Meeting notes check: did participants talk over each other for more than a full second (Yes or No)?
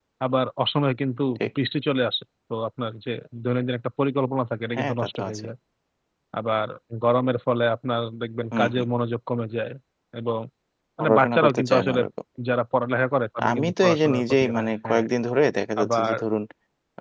Yes